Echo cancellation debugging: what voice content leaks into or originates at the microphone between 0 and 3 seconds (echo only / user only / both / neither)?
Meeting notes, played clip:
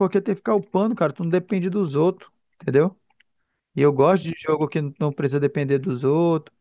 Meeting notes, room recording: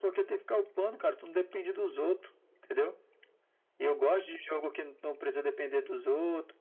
echo only